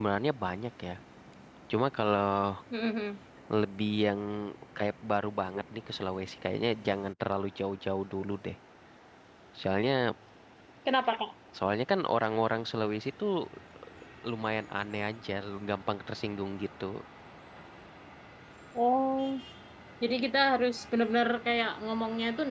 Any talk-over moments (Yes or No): No